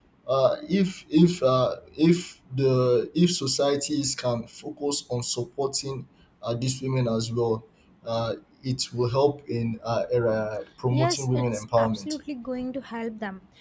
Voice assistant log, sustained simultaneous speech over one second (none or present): present